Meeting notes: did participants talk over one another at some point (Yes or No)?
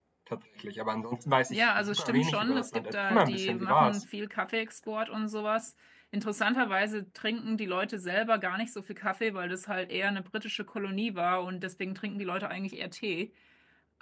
Yes